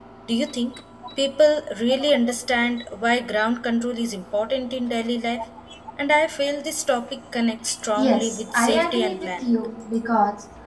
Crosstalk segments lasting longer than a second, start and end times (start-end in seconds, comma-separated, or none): 8.0-9.4